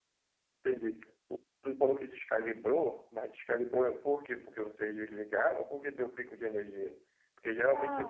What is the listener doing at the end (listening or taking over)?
listening